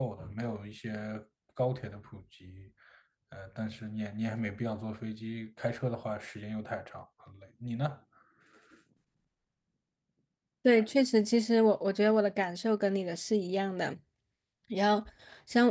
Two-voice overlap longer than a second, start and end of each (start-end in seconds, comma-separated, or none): none